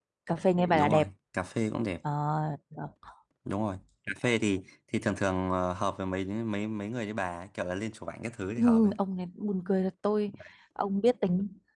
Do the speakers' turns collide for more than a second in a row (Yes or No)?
No